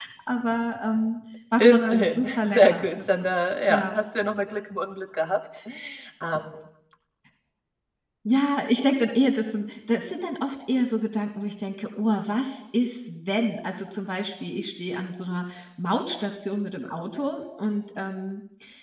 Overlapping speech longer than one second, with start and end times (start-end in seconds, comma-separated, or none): 1.6-3.3